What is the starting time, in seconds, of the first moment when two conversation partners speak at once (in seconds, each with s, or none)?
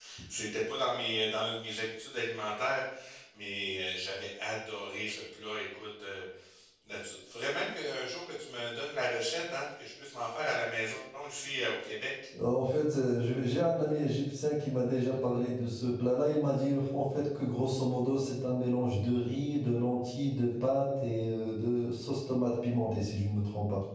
none